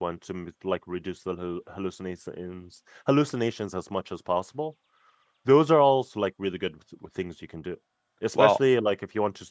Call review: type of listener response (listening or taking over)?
listening